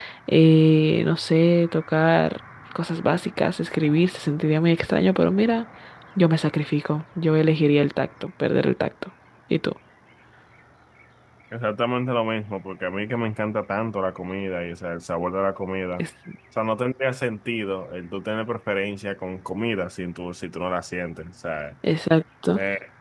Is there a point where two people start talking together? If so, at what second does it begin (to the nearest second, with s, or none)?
none